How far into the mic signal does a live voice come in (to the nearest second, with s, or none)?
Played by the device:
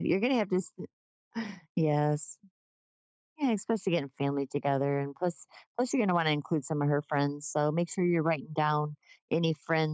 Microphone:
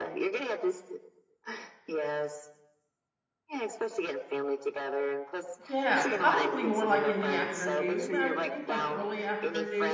6 s